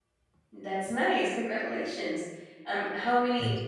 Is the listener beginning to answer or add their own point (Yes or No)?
No